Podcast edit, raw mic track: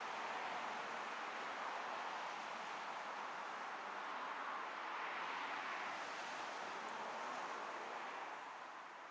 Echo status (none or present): none